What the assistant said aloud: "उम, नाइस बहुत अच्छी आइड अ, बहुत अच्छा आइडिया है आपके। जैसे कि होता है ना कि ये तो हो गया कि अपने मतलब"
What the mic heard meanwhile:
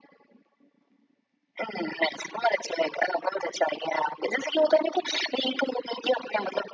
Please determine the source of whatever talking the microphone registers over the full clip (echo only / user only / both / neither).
echo only